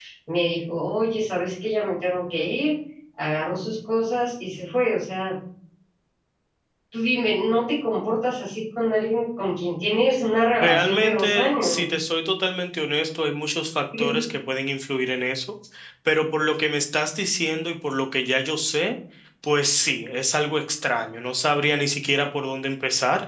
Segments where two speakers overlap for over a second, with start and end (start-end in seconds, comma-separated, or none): 10.6-11.8